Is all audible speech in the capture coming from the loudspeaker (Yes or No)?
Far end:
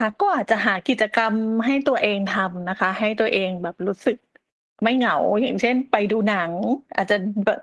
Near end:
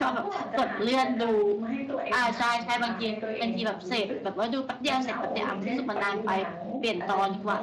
No